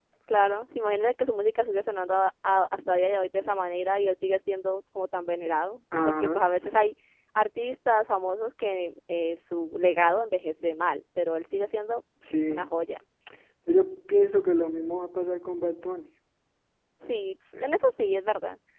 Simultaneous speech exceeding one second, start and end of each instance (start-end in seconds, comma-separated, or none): none